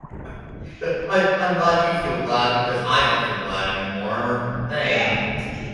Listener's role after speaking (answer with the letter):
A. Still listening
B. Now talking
B